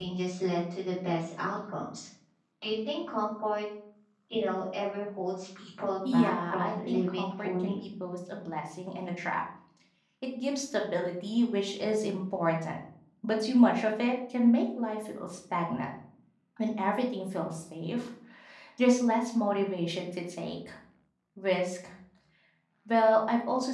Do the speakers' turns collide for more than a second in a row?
Yes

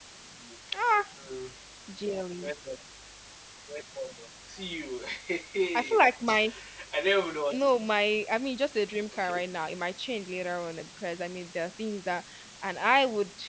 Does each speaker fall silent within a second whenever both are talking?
Yes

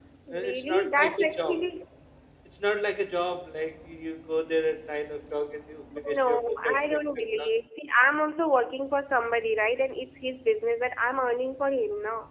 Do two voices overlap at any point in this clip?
Yes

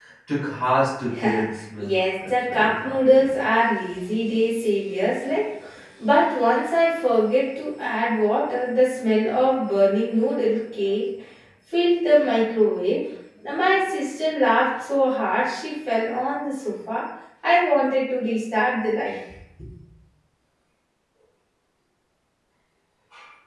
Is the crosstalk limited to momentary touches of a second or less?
No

